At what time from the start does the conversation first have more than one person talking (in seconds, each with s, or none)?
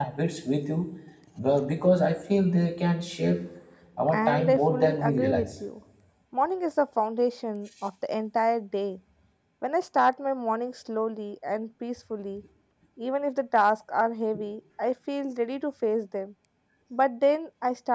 4.1 s